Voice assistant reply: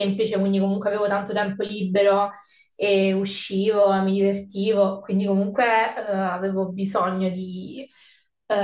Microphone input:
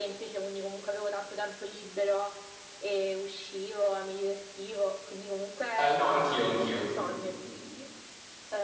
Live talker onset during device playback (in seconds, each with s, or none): 5.7 s